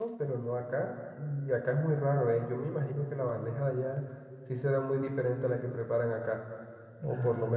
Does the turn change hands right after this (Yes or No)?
No